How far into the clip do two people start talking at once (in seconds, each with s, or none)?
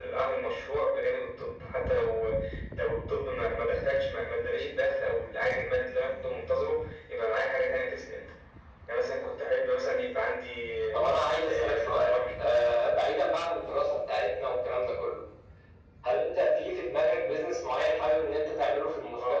10.9 s